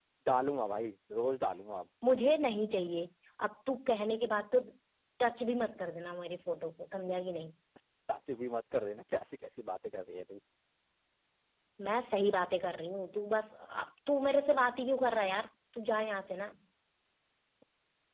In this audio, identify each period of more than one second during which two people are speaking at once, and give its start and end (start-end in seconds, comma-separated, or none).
none